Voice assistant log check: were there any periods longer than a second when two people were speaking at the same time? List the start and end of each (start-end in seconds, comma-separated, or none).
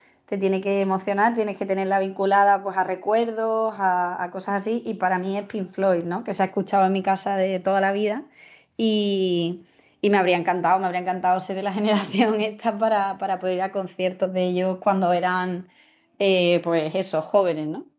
none